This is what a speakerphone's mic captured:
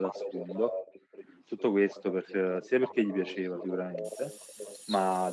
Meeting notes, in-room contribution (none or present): present